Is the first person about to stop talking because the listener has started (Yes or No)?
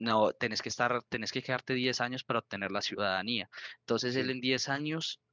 No